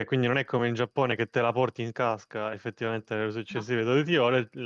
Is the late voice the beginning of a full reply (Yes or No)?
No